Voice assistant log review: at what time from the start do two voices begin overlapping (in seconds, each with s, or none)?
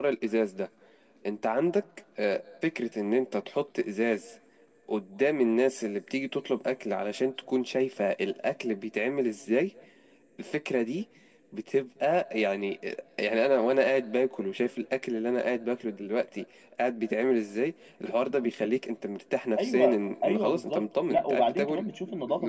19.6 s